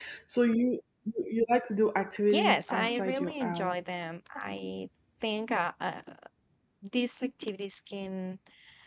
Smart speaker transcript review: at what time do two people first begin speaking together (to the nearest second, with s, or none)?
2 s